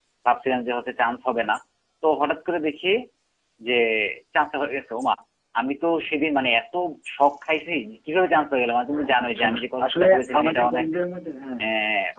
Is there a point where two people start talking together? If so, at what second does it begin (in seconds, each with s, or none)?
8.9 s